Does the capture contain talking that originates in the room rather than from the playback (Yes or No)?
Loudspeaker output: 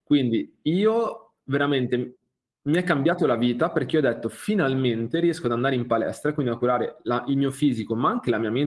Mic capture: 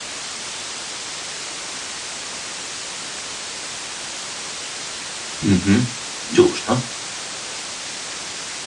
Yes